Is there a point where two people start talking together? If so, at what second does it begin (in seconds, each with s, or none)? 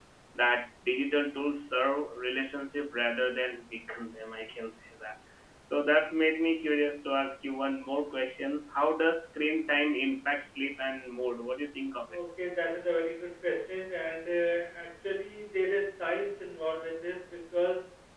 none